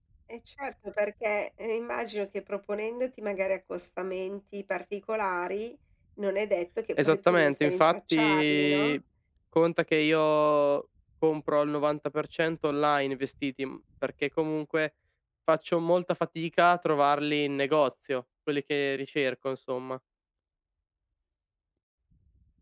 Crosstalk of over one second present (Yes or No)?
Yes